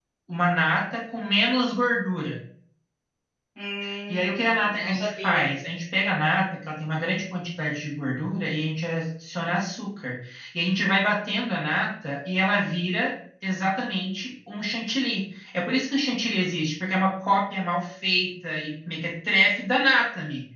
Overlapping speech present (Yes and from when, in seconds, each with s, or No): Yes, from 4.1 s